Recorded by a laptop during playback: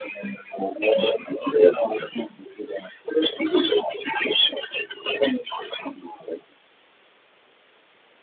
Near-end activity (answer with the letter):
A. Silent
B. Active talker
A